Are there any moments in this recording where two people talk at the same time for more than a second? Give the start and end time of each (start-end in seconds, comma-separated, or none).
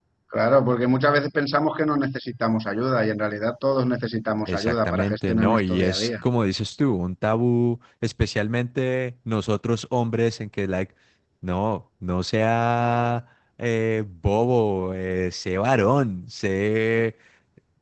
4.5-6.1